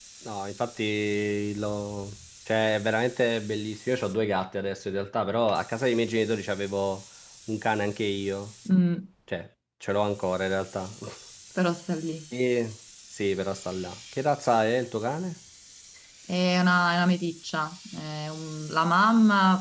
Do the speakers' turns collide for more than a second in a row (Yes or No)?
No